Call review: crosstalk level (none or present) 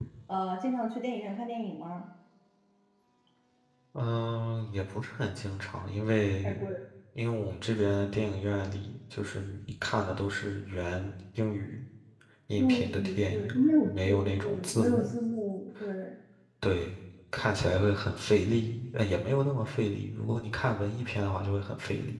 present